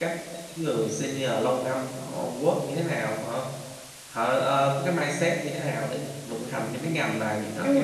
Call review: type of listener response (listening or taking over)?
taking over